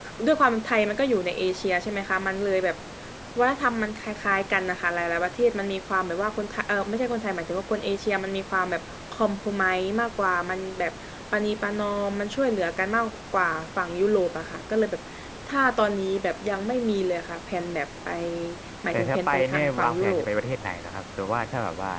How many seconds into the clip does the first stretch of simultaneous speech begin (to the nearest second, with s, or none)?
19 s